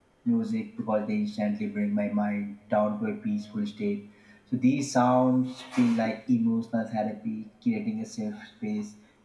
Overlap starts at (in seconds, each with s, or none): none